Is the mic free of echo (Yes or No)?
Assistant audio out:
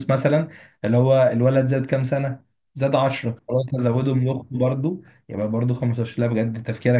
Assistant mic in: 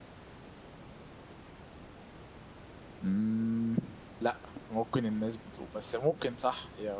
Yes